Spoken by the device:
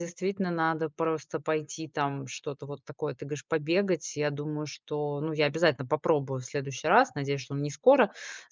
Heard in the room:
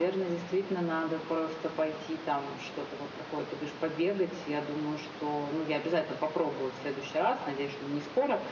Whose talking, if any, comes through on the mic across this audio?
echo only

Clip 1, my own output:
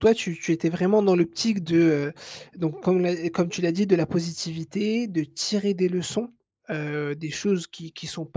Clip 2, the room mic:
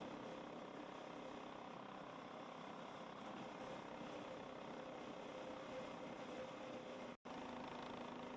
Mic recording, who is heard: neither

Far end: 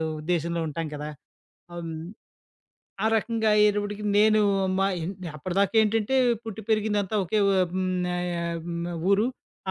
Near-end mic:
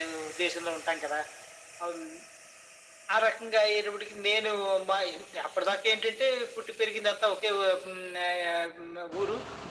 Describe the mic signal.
echo only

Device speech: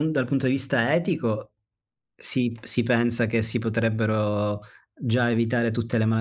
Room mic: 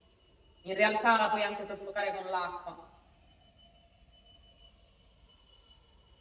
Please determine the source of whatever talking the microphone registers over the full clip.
user only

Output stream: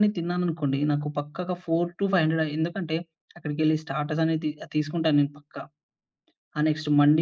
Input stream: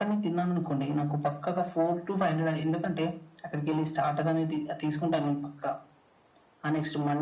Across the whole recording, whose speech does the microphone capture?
echo only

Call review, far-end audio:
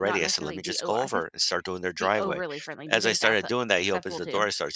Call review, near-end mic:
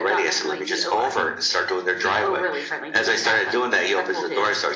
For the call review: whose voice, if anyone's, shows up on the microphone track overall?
echo only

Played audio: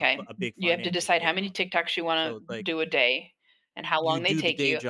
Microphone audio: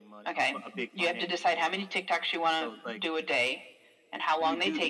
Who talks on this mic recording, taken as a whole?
echo only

